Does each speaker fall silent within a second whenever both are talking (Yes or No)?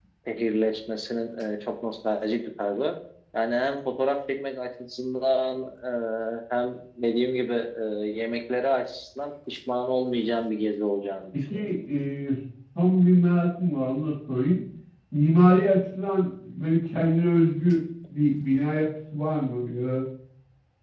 Yes